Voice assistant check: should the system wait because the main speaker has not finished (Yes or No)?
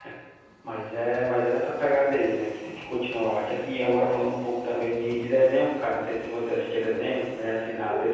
Yes